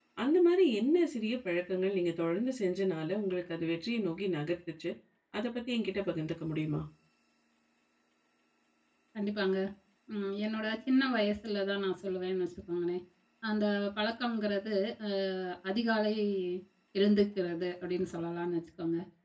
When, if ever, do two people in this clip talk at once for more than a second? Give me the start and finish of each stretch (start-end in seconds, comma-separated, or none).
none